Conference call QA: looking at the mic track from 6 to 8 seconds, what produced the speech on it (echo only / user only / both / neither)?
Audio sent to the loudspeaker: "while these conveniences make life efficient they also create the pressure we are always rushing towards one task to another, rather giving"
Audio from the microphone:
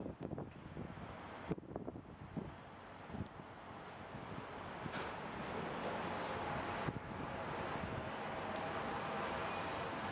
neither